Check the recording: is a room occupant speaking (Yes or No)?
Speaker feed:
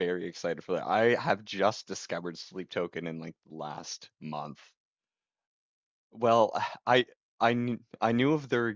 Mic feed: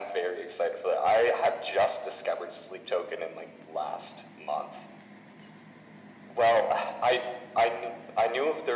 No